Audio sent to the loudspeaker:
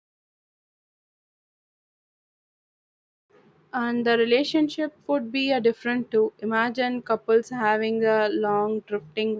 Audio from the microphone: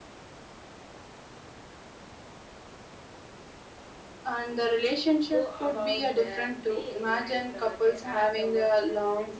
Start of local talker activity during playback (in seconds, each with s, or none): 5.3 s